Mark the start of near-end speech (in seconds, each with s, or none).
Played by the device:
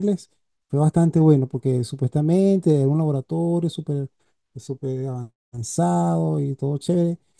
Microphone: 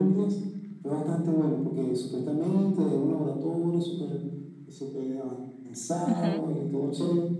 6.0 s